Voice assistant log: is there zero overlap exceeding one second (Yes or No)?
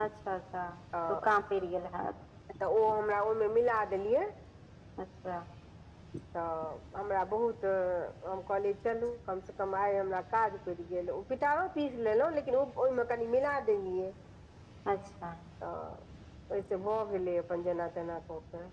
Yes